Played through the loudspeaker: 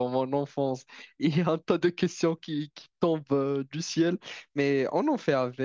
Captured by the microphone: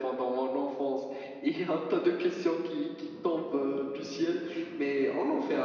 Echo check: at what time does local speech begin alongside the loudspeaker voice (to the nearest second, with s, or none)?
none